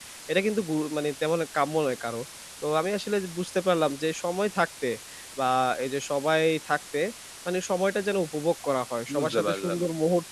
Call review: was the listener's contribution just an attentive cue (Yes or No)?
Yes